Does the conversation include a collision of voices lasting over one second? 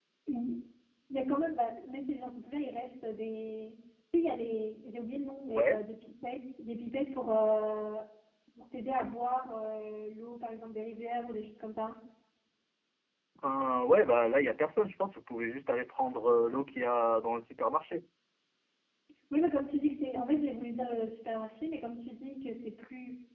No

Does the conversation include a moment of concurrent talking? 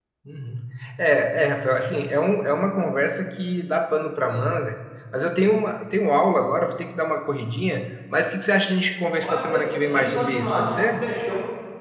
Yes, from 9.2 s

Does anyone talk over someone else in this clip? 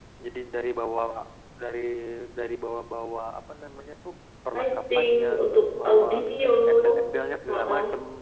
Yes, from 4.6 s

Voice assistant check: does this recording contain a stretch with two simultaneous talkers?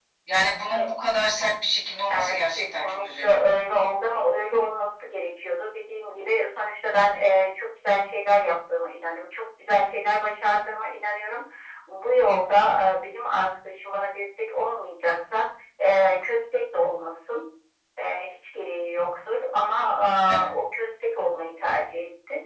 Yes, from 2.1 s

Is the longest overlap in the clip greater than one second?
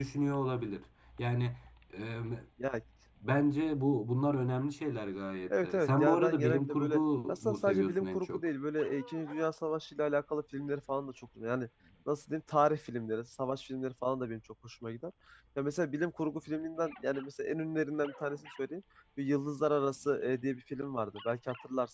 Yes, from 5.5 s

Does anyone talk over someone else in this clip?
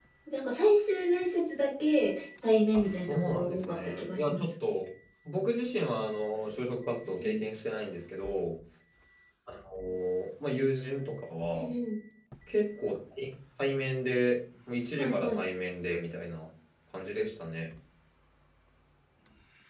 Yes, from 2.7 s

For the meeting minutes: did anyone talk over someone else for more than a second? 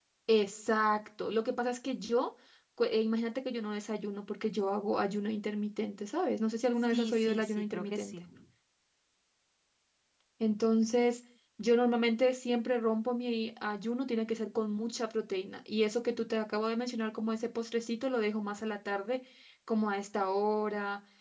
Yes, from 6.9 s

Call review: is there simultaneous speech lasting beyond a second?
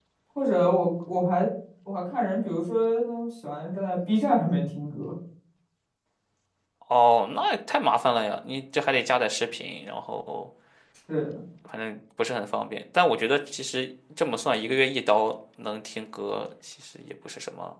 No

